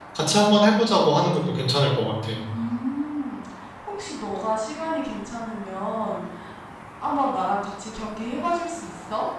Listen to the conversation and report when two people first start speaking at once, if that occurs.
none

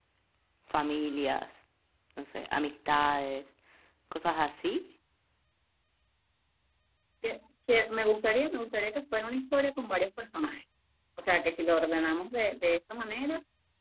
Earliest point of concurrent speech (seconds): none

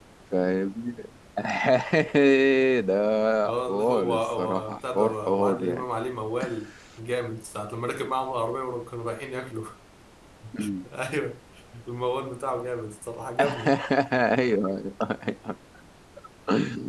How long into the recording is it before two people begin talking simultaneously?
3.5 s

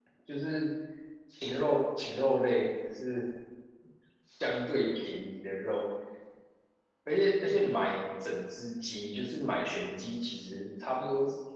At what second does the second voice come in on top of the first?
none

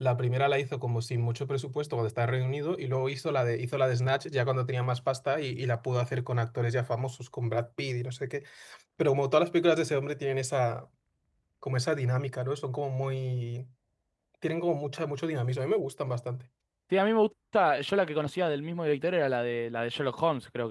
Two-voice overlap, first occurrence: none

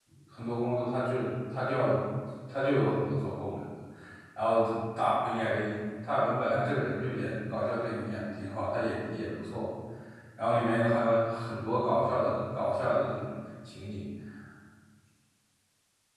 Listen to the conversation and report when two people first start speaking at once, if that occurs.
none

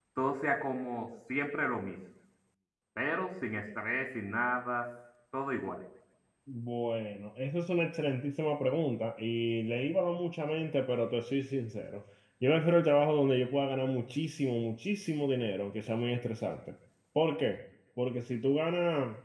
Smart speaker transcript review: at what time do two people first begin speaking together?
none

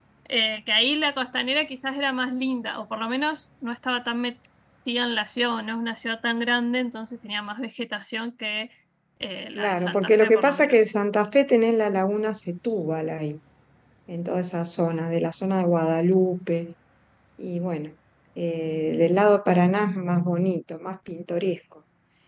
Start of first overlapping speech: 9.6 s

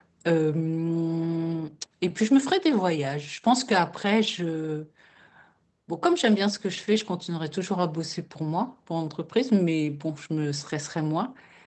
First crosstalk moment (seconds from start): none

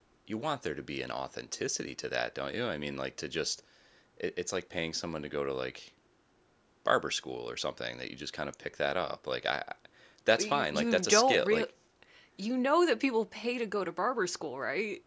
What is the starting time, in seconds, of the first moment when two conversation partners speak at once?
10.4 s

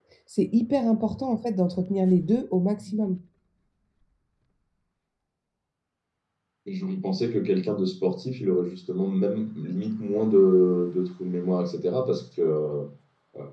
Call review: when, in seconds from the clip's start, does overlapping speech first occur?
none

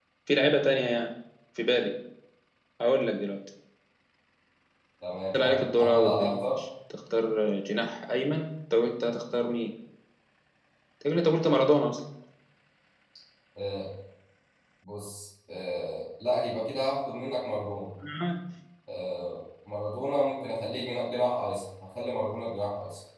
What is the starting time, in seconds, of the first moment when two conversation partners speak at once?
5.3 s

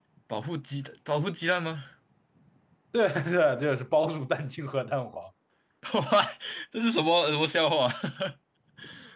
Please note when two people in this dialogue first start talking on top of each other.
none

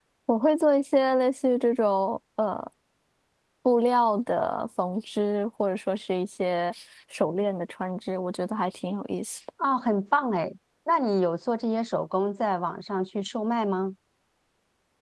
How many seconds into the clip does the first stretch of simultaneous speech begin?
none

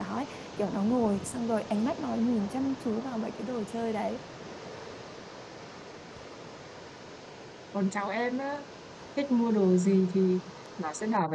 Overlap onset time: none

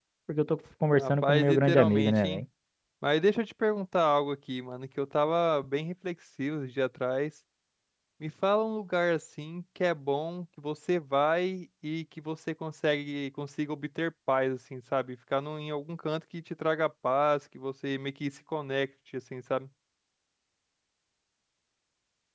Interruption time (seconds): 0.9 s

